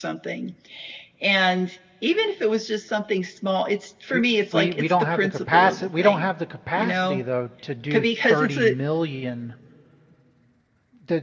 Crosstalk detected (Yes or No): Yes